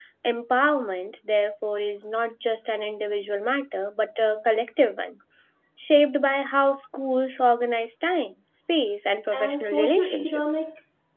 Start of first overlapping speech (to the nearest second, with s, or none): 9 s